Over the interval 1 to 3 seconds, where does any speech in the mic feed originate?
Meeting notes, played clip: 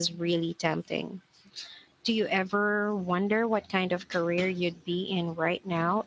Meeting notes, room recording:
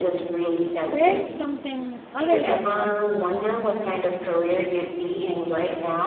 both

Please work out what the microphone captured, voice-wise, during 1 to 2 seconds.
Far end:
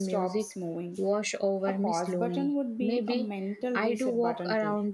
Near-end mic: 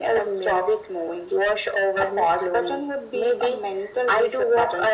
echo only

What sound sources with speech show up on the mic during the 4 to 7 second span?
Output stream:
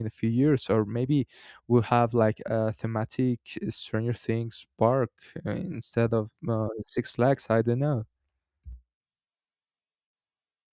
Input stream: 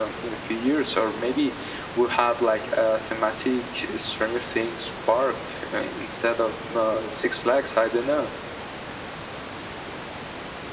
echo only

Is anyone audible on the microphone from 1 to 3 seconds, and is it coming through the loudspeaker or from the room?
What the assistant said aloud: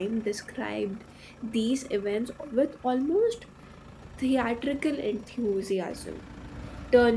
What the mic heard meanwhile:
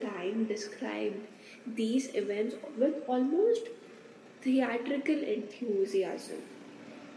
echo only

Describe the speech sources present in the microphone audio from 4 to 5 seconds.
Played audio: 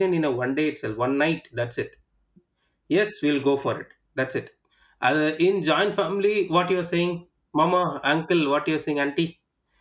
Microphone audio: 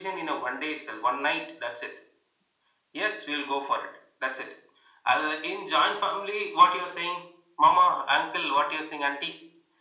echo only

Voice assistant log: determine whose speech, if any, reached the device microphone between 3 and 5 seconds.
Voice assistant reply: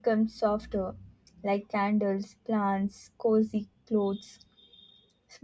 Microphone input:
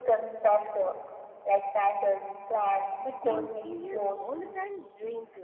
both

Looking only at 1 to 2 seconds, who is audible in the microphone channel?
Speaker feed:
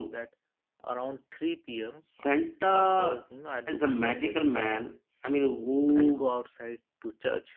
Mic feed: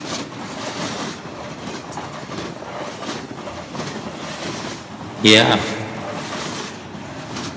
neither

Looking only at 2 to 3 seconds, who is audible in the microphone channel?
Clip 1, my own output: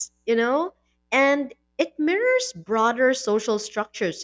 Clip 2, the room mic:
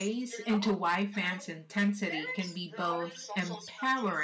both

